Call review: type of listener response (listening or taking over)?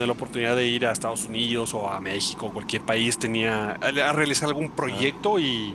listening